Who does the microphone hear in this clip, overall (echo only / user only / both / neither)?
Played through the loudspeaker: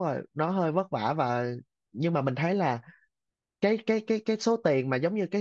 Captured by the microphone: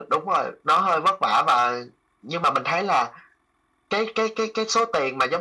echo only